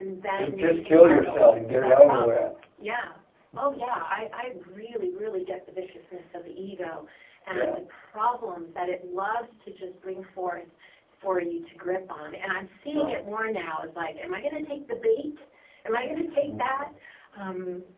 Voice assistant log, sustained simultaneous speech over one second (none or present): present